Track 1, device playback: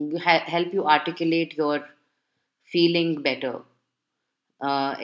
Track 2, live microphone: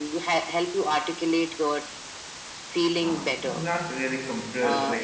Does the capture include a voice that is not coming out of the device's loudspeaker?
Yes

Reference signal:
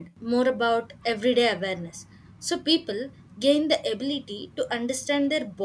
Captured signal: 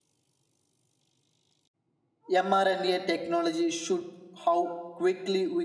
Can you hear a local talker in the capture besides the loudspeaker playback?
Yes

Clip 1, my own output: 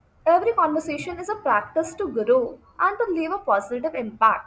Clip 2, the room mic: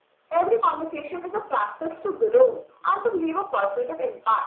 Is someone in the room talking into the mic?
No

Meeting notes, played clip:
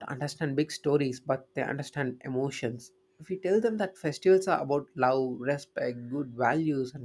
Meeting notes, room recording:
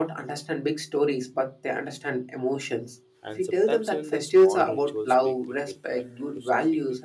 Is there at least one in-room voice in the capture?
Yes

